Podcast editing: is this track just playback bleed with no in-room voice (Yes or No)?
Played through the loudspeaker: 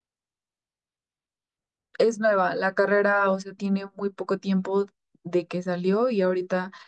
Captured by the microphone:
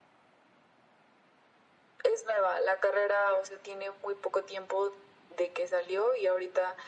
Yes